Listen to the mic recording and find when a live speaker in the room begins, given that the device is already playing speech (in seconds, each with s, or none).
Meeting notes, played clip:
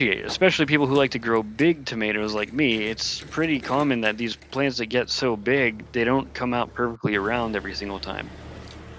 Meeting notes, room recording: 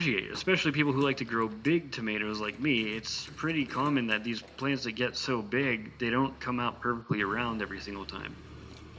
none